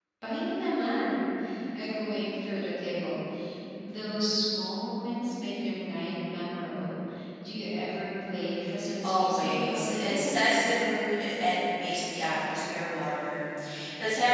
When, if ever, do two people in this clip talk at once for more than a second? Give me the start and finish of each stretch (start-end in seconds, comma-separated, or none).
9.0-10.3